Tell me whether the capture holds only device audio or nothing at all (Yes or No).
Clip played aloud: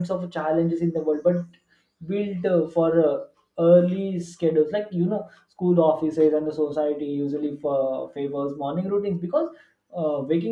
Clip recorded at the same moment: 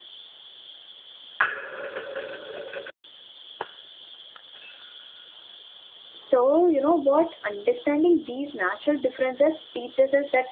No